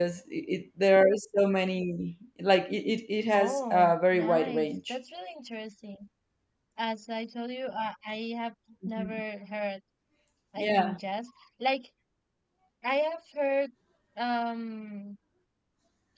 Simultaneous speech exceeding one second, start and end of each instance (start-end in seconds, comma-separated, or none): 3.3-5.0